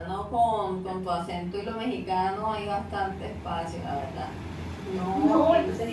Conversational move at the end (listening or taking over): taking over